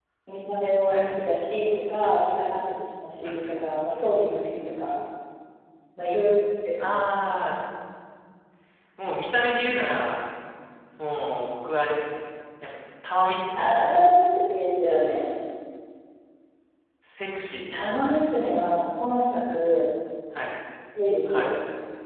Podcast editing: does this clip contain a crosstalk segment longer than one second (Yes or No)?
No